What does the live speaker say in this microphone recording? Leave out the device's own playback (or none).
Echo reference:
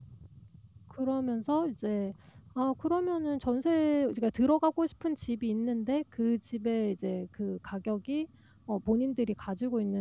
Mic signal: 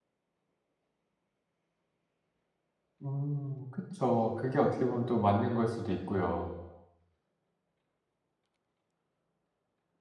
음 그쵸. 그게 어떻게 보면 또 맞는 거일 수도 있고요.